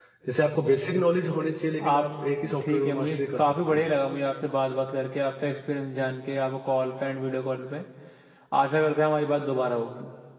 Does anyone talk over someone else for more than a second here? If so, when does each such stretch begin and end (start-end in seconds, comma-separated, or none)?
2.6-3.9